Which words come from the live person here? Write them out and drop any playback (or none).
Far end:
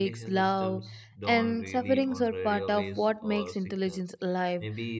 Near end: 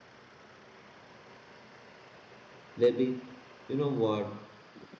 Lebig, you know what?